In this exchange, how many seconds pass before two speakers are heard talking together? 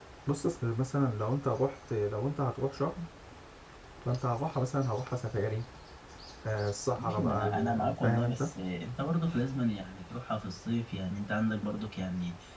7.0 s

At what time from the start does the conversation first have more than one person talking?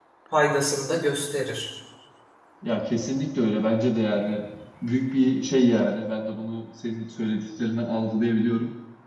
none

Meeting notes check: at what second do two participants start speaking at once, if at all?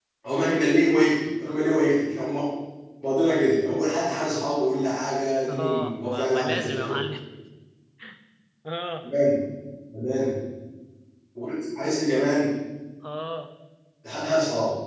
5.5 s

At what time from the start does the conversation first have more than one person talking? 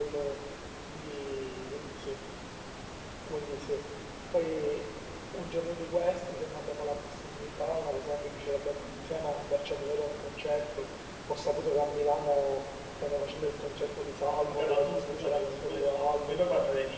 14.5 s

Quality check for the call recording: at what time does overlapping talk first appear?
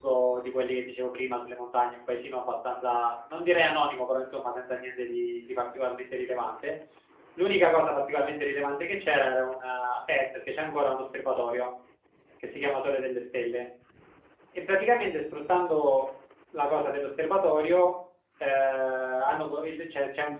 none

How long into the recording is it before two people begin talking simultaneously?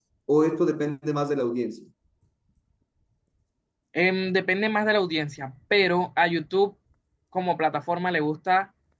none

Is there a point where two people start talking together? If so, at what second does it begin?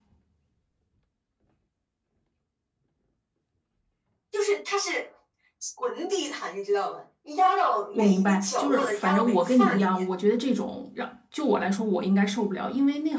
7.9 s

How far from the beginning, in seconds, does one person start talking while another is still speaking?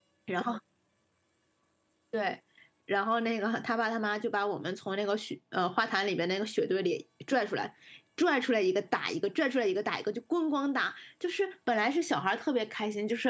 none

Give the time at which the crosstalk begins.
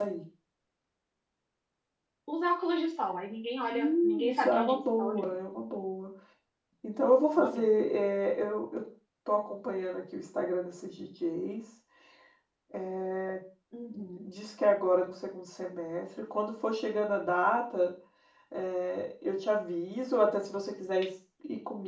3.7 s

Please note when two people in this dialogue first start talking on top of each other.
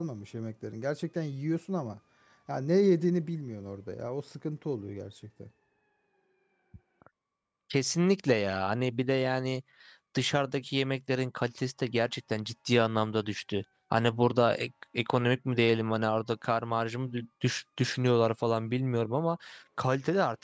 none

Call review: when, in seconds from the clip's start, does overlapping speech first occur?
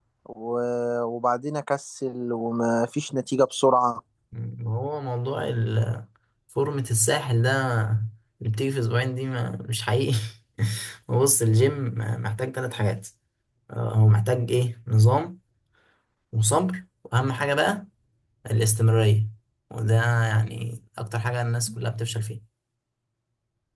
none

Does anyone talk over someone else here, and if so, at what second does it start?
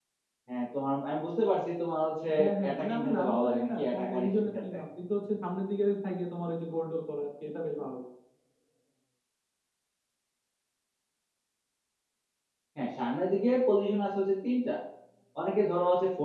2.6 s

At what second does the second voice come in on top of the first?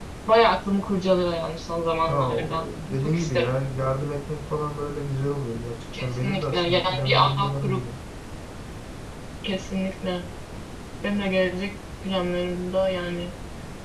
2.0 s

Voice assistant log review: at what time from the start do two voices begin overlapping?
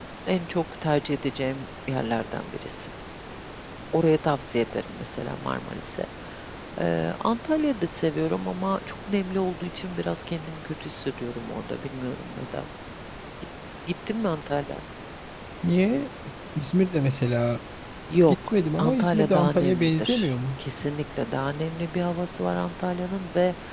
18.3 s

